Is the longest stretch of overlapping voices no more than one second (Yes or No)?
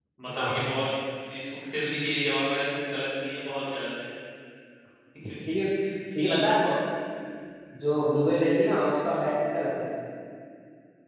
Yes